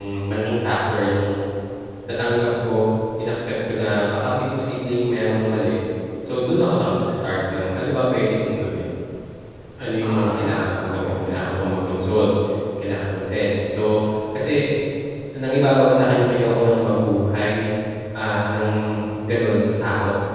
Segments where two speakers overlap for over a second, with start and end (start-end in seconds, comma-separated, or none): 10.0-11.5